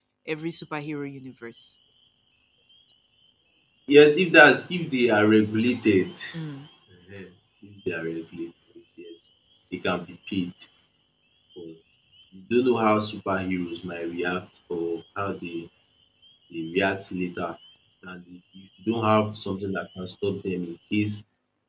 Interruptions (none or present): none